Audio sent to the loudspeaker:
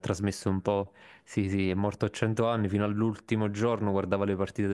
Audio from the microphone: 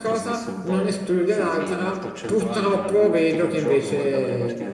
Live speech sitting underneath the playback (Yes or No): No